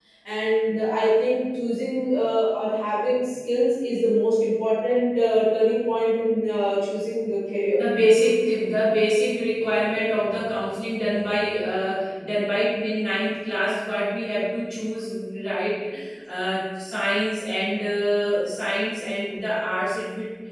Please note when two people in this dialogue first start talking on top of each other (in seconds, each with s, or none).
none